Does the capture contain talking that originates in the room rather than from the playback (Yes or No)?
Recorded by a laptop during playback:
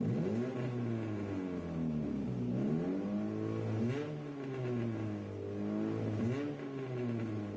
No